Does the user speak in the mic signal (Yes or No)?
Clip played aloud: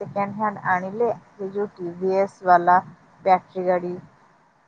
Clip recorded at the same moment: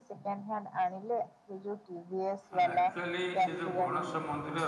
Yes